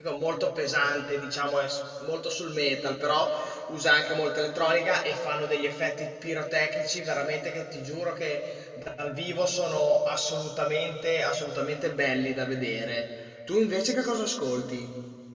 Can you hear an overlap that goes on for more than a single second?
No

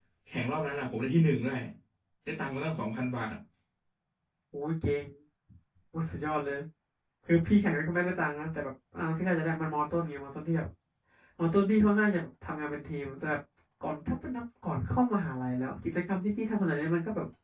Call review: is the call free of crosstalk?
Yes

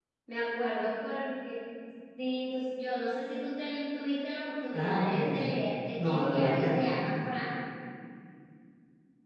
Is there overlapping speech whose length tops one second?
Yes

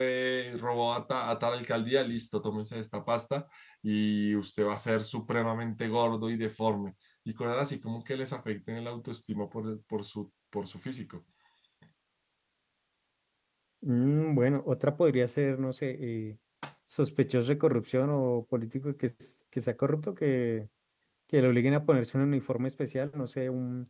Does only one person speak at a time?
Yes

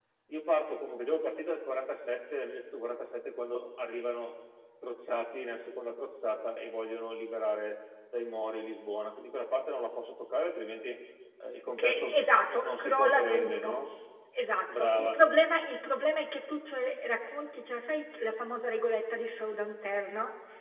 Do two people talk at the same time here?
Yes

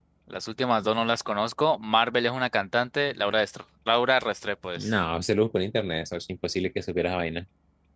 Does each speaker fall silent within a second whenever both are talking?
Yes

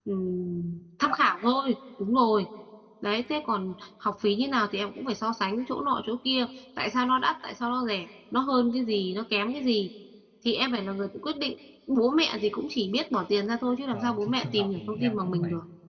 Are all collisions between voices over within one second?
No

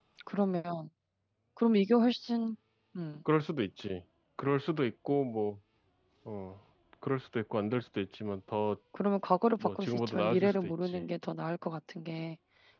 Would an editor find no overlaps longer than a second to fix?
No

